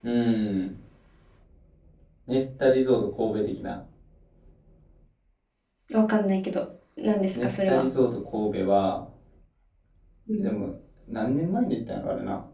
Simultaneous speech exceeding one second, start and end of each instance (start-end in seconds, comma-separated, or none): none